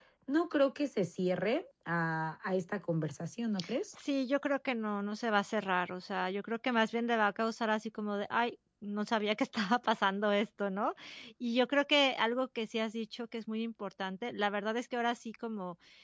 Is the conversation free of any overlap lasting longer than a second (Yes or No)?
Yes